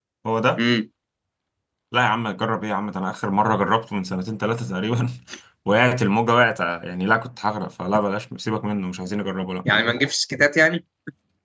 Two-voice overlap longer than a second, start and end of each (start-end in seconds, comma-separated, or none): none